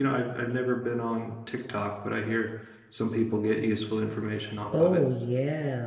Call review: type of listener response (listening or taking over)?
taking over